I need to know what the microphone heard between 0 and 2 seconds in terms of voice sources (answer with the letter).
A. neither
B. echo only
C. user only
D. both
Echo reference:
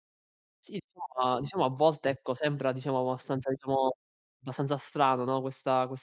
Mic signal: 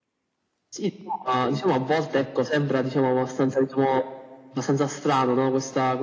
B